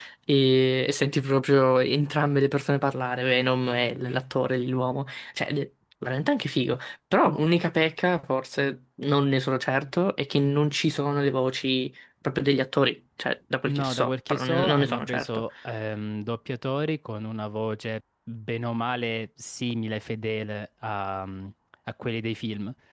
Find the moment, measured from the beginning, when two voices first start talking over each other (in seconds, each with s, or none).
13.7 s